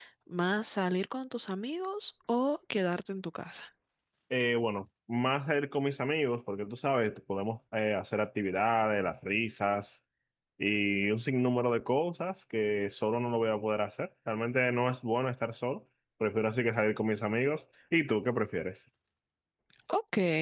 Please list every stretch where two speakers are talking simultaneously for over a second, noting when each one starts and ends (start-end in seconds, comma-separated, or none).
none